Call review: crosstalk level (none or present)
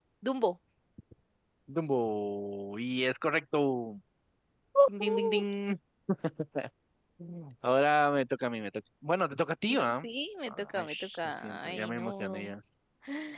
present